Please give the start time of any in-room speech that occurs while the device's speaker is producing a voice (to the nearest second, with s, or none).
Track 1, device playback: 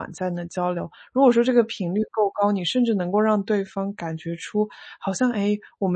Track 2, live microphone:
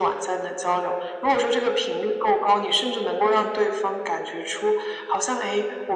none